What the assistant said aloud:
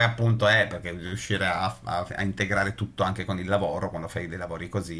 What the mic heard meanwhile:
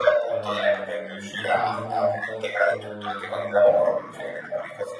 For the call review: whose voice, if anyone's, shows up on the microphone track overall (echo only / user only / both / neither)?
both